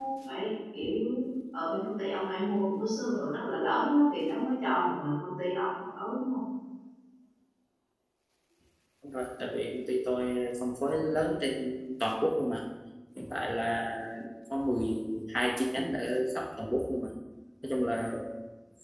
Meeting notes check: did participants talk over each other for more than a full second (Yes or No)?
No